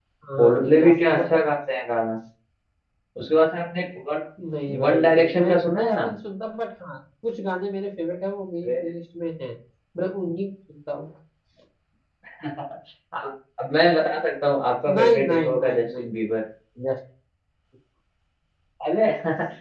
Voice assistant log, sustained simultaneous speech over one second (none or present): present